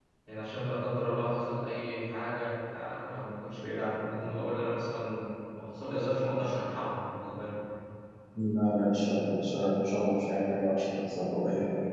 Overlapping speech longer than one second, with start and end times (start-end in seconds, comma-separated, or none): none